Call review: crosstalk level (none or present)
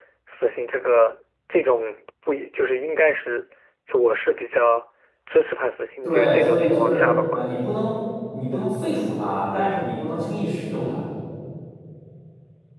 present